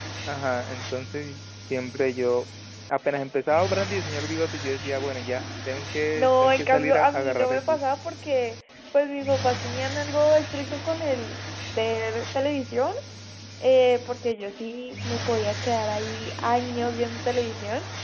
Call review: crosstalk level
present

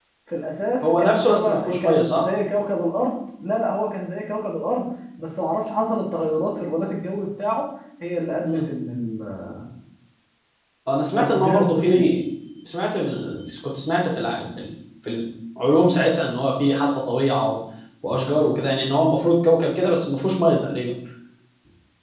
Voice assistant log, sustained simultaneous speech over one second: present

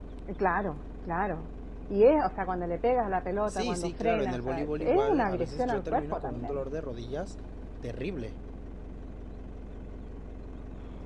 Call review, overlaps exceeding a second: present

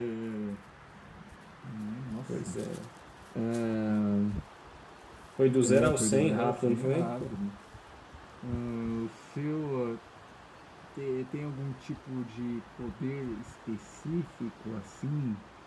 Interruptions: present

